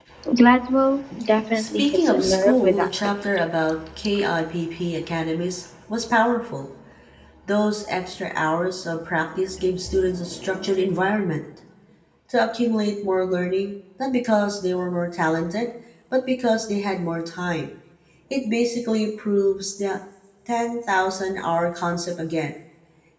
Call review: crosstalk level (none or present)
present